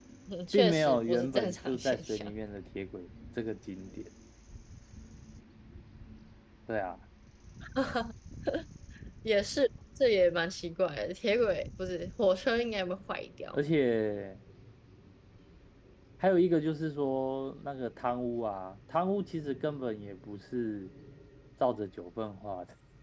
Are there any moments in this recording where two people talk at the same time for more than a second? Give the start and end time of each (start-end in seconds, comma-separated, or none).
0.5-2.3